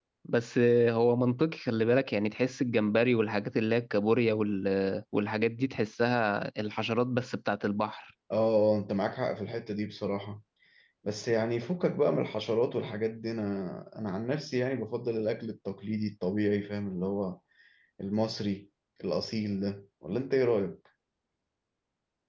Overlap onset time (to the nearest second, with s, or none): none